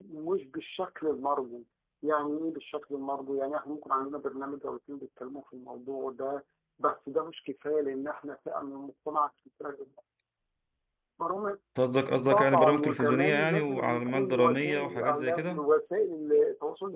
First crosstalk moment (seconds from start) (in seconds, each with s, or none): 12.3 s